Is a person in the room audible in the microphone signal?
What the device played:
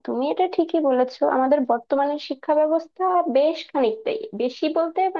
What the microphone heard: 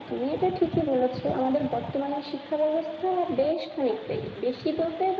No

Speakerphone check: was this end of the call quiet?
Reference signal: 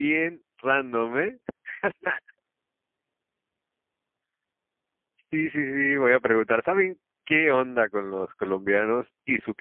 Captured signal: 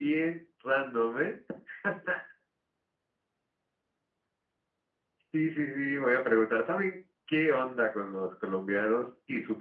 Yes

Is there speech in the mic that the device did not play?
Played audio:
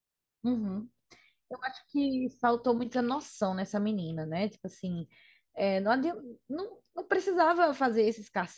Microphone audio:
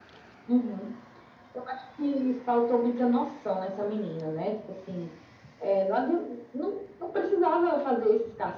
No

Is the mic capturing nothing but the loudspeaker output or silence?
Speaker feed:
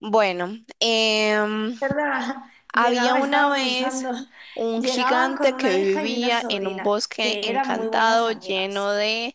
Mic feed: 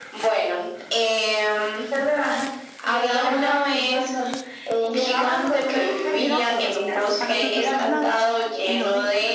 No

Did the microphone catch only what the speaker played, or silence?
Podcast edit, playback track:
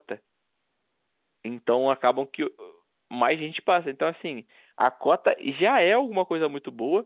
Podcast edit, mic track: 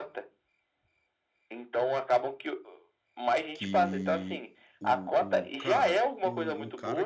No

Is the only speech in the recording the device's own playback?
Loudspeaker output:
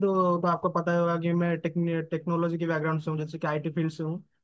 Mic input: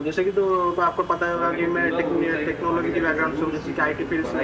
No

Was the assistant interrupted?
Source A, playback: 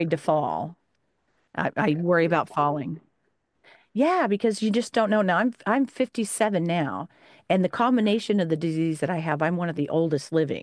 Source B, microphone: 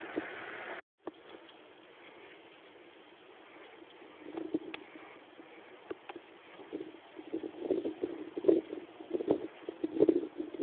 No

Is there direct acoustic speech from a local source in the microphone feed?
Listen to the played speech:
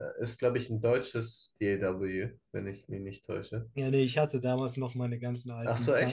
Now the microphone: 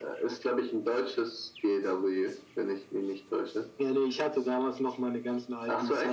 No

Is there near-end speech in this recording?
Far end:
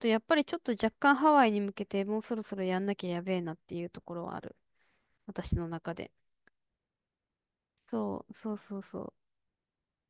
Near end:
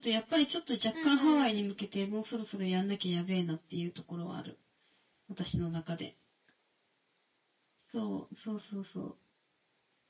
Yes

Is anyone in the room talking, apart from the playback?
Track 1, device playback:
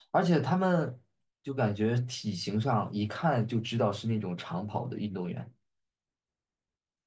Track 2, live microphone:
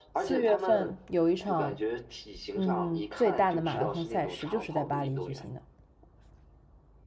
Yes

